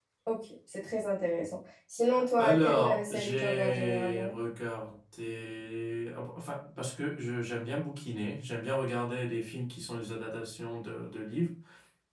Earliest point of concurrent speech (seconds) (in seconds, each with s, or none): 2.1 s